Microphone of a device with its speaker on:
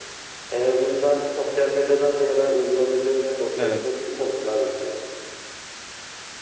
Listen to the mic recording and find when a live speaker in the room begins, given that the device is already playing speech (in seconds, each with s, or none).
3.5 s